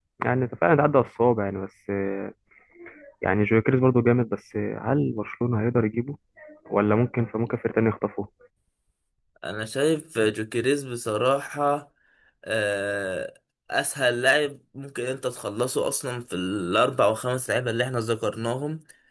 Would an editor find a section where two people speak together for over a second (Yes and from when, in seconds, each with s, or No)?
No